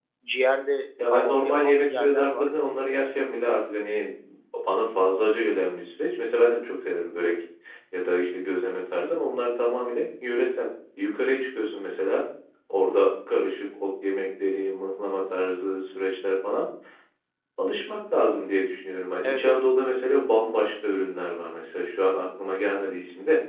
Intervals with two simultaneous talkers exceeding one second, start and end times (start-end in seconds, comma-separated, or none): 1.1-2.5